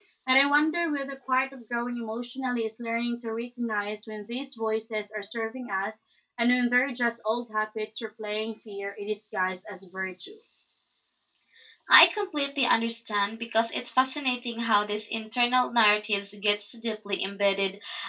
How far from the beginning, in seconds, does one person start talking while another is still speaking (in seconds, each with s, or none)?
none